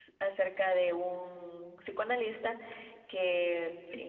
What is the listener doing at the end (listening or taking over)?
listening